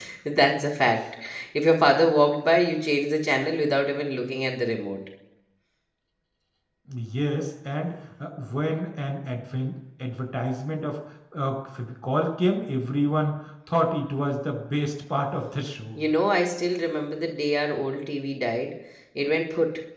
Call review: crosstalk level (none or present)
none